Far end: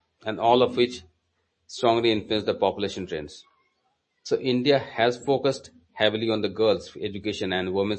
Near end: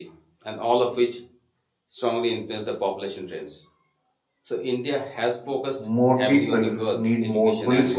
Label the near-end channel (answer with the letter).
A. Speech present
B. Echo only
A